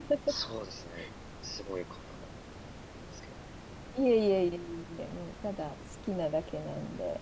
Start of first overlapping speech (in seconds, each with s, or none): none